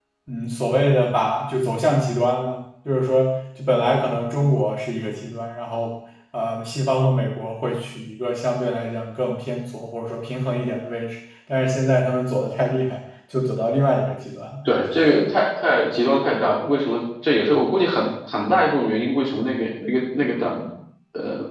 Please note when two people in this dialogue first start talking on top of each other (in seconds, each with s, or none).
none